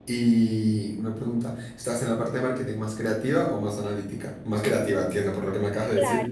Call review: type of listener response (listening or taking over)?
taking over